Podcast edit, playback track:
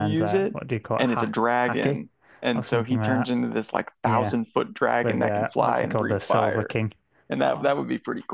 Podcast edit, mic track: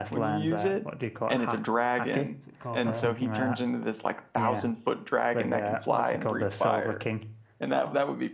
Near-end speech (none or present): present